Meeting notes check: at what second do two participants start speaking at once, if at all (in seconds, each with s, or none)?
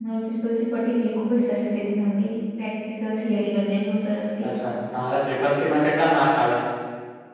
none